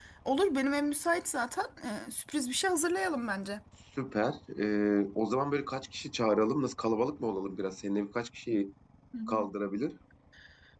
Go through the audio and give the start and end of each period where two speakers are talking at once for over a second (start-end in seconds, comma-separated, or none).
none